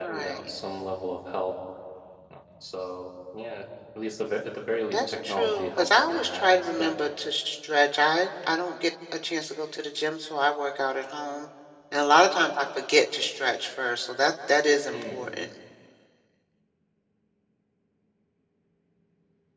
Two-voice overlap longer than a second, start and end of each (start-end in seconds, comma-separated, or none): 4.9-7.0